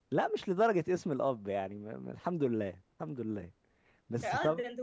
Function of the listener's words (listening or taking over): taking over